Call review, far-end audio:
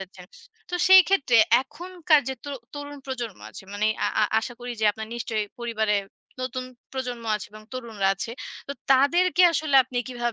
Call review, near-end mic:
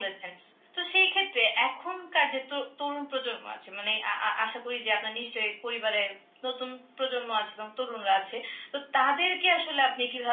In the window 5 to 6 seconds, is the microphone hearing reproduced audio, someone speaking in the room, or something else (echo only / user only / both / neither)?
echo only